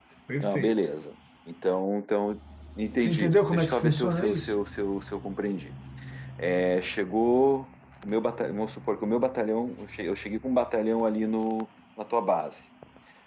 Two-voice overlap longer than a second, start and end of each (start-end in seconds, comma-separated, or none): 3.0-4.5